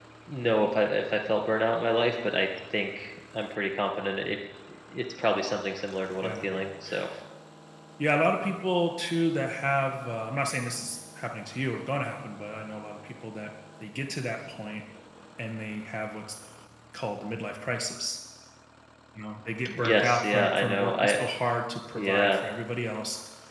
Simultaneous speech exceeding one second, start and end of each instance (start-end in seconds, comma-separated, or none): 19.8-21.2